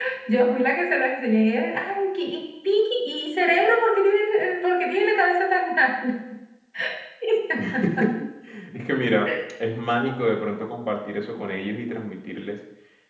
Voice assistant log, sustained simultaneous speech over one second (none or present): none